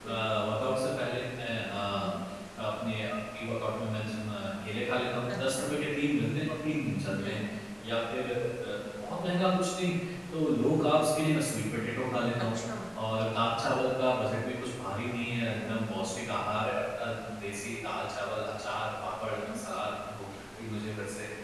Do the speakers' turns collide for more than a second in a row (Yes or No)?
No